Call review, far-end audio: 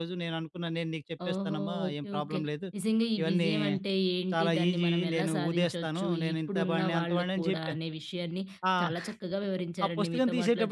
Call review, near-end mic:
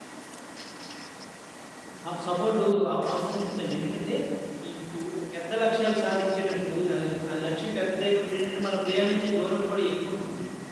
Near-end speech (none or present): present